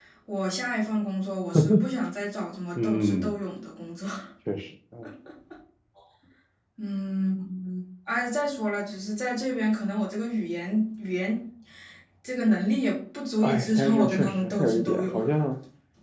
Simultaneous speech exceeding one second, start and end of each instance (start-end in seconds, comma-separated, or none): 13.4-15.2